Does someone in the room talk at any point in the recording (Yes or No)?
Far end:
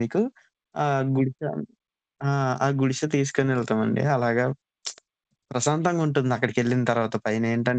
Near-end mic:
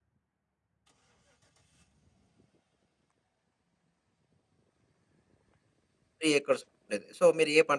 Yes